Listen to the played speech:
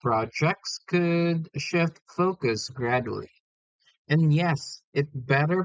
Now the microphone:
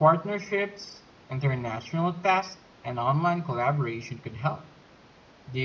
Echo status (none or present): none